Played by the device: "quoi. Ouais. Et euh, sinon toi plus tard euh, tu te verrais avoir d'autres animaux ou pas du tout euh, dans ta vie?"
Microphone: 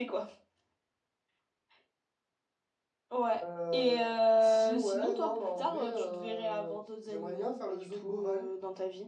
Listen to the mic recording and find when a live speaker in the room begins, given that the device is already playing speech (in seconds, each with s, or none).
3.4 s